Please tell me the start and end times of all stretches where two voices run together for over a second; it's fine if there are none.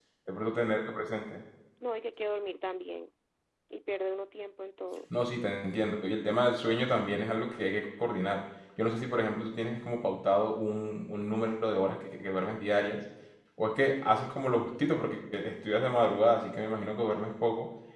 none

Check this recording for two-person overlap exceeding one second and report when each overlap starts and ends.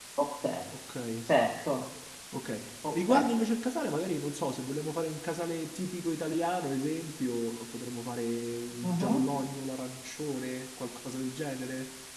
none

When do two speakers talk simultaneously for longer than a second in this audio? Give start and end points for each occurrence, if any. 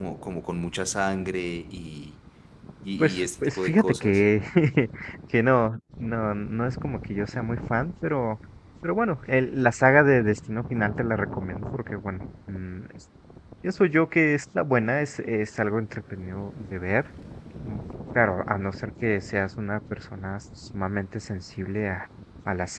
3.0-4.2

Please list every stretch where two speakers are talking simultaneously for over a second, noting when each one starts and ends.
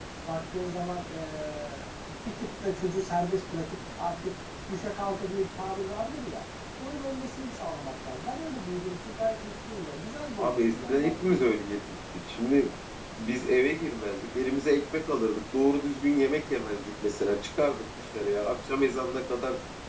10.4-11.6

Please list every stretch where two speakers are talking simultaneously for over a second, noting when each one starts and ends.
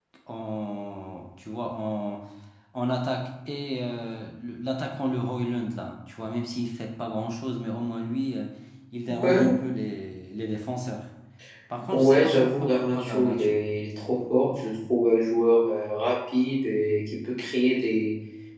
11.9-13.6

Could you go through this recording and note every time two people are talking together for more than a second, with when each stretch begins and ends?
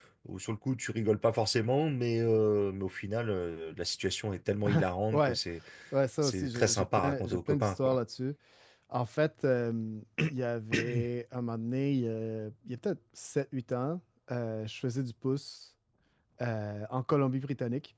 6.2-8.0

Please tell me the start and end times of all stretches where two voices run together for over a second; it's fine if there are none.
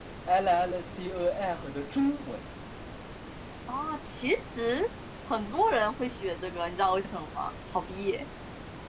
none

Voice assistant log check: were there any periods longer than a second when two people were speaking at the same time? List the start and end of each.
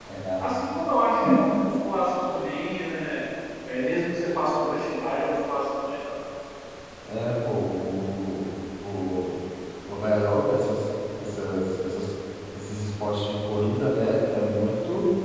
none

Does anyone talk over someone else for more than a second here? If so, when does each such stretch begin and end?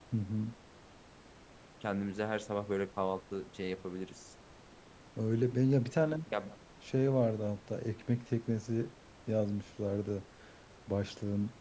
none

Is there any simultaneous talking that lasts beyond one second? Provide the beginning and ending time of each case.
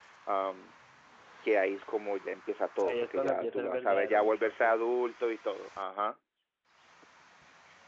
2.8-4.8

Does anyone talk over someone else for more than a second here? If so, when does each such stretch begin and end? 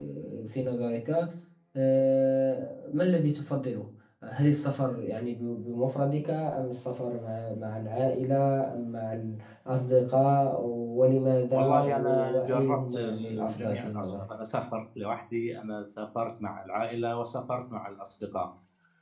11.5-14.3

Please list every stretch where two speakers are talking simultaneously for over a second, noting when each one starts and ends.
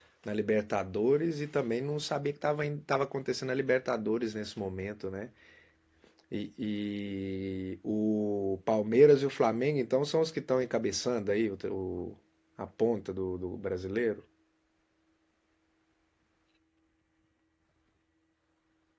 none

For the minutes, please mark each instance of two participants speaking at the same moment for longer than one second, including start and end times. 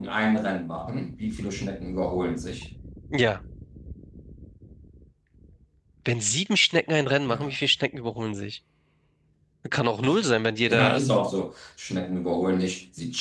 none

